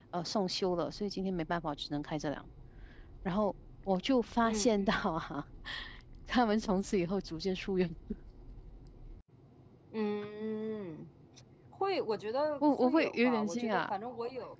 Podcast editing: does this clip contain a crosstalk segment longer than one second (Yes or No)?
Yes